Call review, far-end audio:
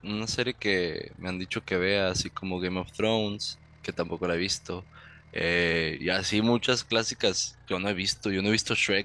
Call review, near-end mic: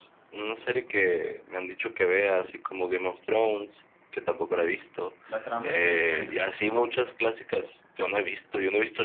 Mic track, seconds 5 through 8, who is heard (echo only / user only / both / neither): both